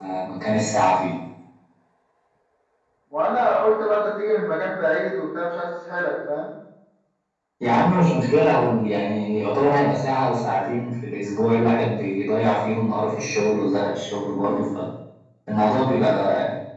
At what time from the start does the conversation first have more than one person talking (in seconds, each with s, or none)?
none